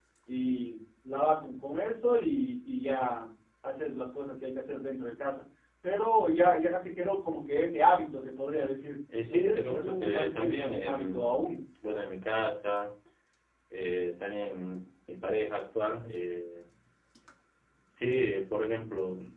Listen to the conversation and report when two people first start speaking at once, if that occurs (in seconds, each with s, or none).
9.1 s